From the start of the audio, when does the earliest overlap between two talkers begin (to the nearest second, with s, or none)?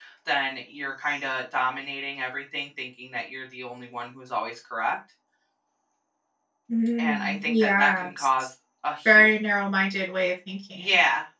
7 s